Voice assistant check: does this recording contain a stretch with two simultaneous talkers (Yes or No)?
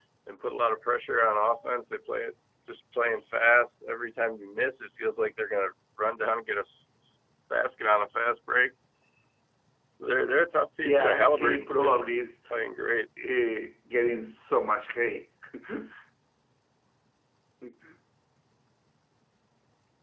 Yes